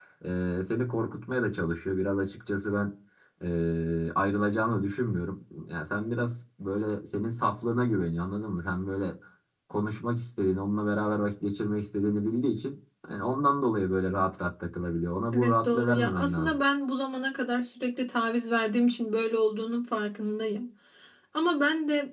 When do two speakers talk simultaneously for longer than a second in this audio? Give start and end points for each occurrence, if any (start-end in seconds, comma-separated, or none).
15.3-16.6